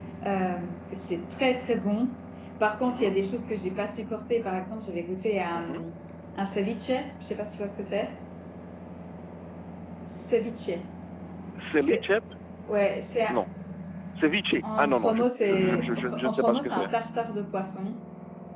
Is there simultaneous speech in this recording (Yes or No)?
Yes